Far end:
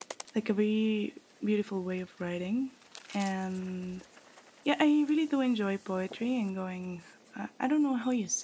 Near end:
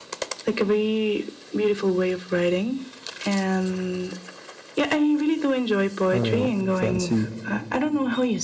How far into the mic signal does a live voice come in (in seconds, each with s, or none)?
6.1 s